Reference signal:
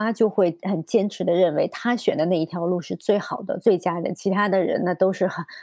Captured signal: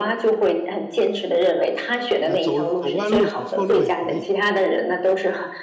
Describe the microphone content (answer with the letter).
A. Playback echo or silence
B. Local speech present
B